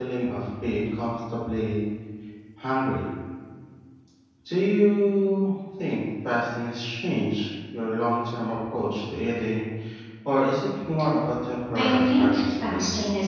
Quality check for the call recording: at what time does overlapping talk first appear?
11.8 s

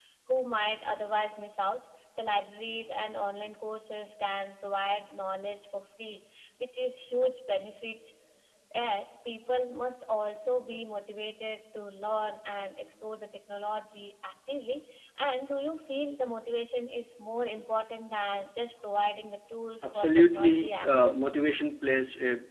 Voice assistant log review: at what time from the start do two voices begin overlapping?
19.8 s

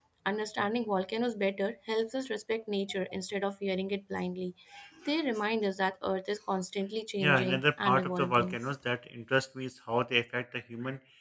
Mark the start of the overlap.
7.2 s

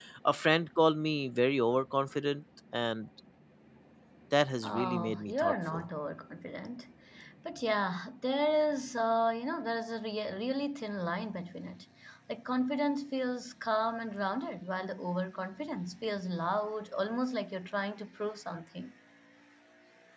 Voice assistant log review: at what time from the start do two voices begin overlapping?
4.6 s

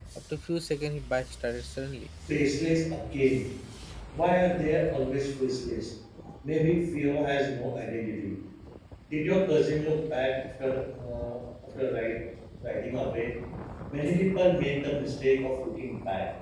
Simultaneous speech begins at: none

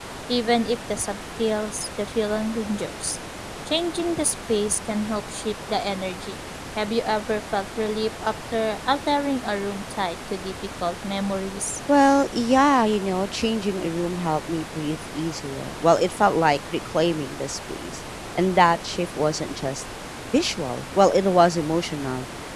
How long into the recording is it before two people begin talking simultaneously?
none

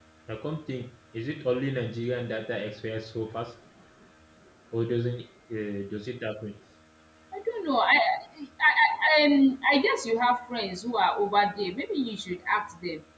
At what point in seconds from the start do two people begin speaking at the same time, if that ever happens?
none

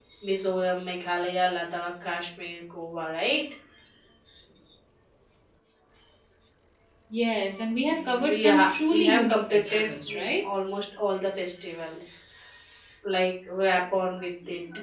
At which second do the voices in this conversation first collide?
8.0 s

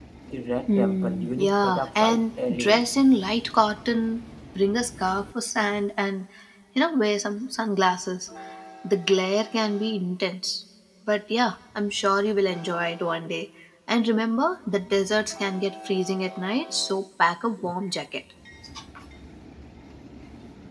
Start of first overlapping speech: 0.7 s

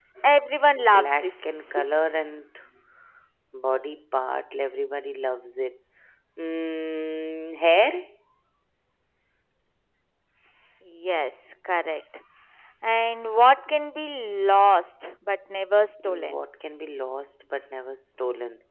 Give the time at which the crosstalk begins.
0.9 s

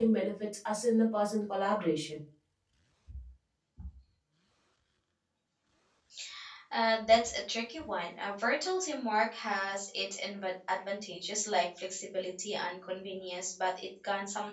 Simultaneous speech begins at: none

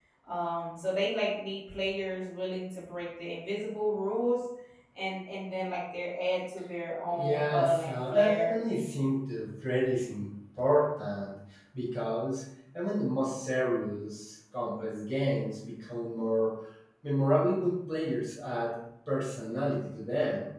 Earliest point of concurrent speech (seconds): 7.1 s

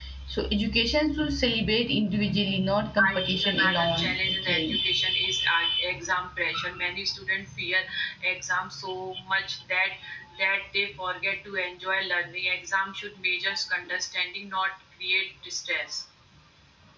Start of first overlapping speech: 3.0 s

